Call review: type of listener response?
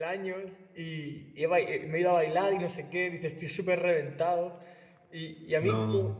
listening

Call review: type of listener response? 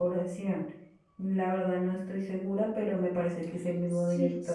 taking over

